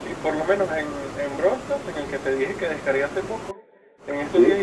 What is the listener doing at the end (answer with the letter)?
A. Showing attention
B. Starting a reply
A